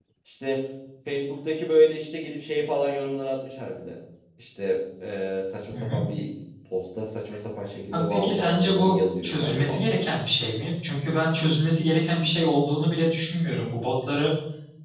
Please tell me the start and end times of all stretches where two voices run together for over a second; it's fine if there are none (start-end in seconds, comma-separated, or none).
7.9-9.8